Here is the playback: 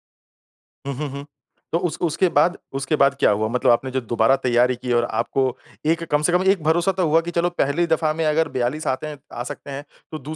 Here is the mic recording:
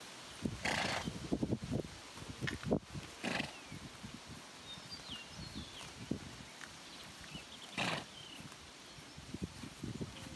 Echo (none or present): none